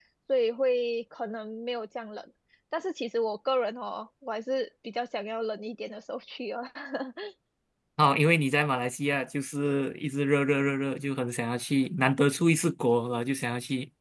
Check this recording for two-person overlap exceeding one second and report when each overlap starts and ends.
none

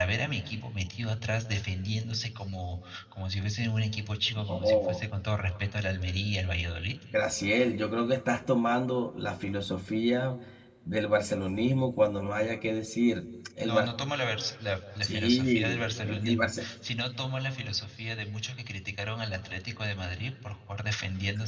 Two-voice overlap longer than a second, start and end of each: 15.0-16.6

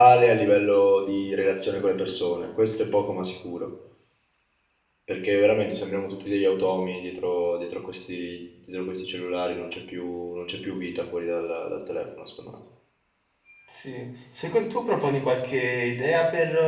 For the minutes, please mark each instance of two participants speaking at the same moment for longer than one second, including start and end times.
none

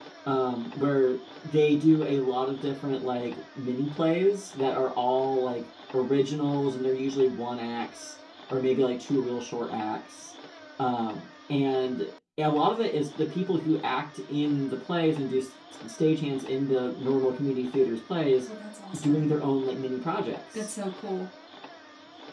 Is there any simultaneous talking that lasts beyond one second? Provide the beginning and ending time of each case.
none

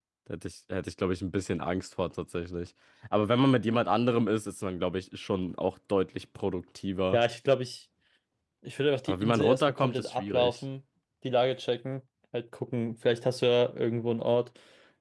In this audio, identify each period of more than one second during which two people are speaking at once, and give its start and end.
9.1-10.6

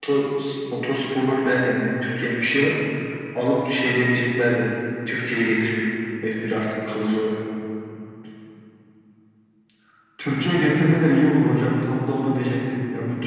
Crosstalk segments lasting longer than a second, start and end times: none

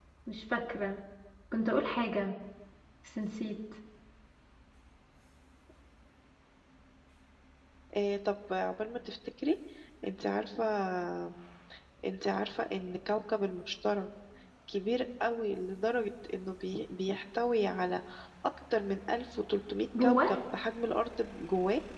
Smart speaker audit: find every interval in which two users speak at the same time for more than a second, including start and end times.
none

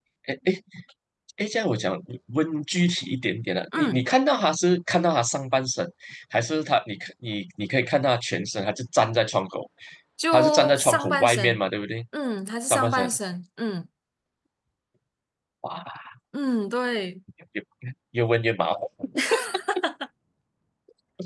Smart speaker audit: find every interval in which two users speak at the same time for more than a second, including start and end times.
10.3-11.6

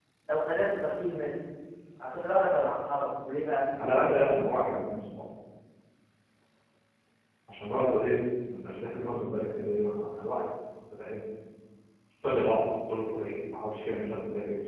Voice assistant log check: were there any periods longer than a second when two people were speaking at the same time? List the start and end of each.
none

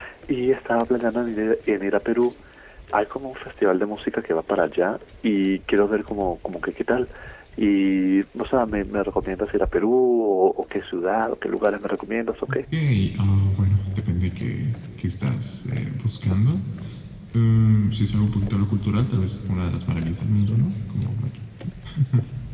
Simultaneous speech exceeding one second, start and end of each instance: none

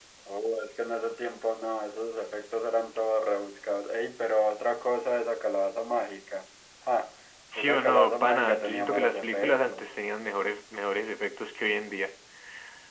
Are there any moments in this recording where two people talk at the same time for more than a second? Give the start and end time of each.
7.5-9.9

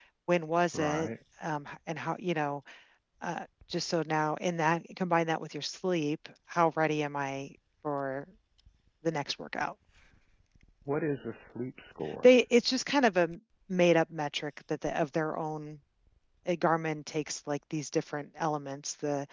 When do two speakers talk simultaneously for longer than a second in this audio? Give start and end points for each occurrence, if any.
none

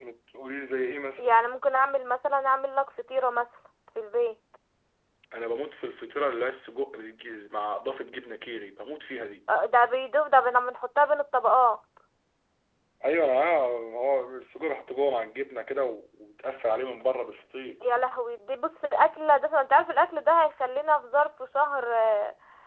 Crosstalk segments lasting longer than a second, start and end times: none

